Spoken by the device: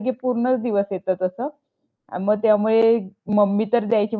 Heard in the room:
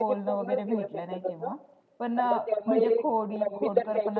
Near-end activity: present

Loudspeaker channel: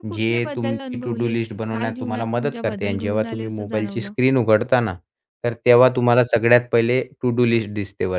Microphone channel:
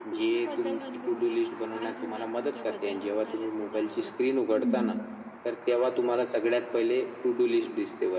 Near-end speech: present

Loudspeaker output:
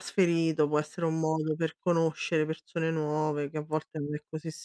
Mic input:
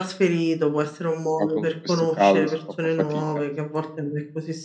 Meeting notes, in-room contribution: present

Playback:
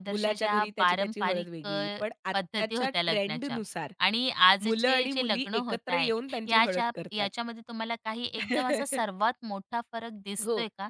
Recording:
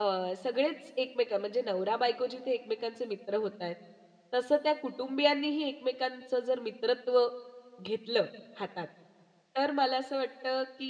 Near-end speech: present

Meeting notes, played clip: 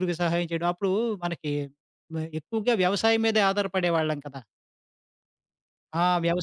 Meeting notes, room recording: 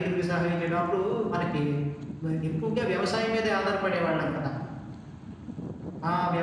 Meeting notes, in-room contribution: none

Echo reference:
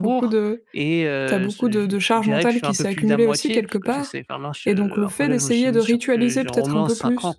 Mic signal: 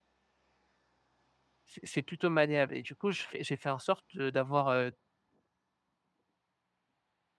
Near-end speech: present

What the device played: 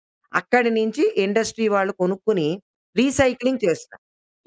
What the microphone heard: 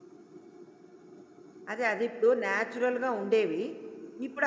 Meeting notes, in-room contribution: present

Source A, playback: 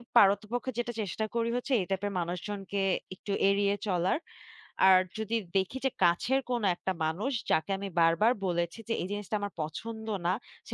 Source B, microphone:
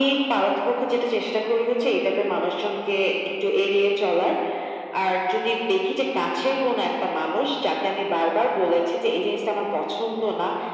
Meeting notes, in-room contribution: none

